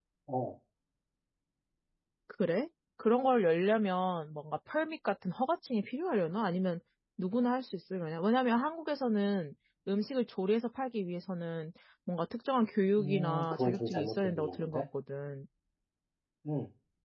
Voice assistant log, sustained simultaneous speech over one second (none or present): present